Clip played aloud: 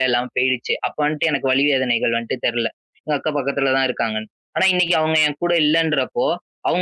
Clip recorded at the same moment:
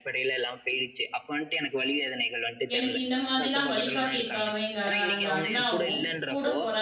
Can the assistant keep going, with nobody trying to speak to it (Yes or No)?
No